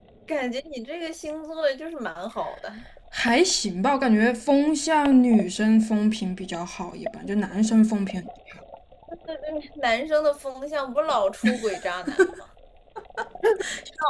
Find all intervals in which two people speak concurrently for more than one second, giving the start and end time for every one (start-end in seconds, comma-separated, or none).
none